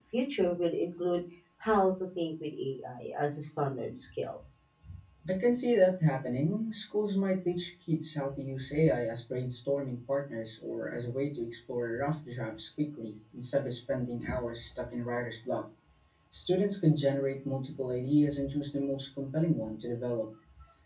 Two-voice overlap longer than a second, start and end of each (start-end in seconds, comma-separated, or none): none